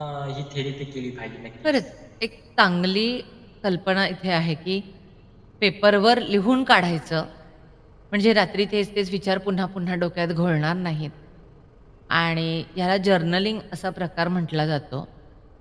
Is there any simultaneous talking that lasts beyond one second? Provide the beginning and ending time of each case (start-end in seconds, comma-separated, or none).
none